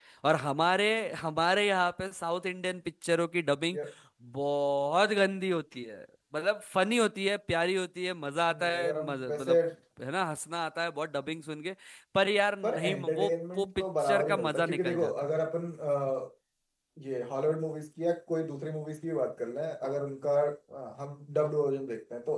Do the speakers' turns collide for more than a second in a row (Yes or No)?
Yes